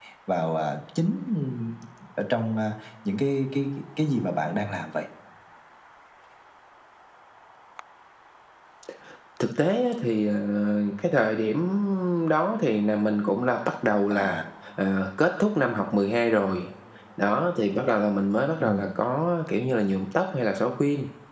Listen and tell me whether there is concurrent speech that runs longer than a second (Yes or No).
No